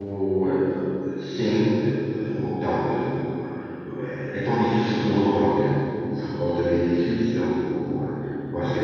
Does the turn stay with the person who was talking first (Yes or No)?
Yes